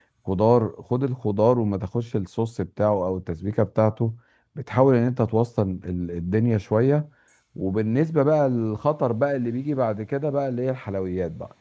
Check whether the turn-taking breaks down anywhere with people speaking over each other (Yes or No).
No